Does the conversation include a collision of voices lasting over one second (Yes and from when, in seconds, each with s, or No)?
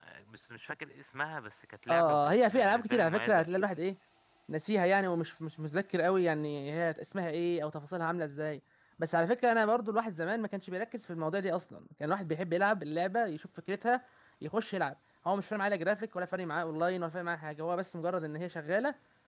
Yes, from 1.9 s